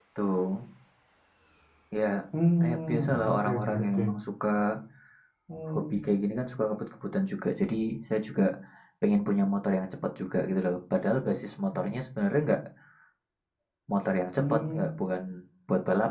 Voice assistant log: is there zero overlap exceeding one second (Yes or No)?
No